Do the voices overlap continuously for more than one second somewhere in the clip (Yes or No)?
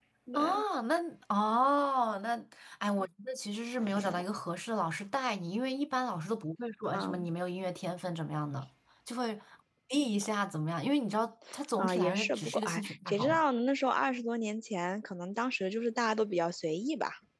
Yes